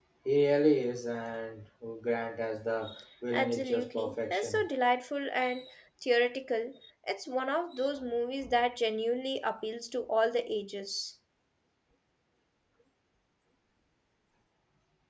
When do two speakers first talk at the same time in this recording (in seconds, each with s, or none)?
3.3 s